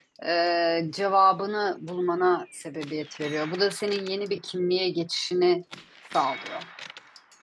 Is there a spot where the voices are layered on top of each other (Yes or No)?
No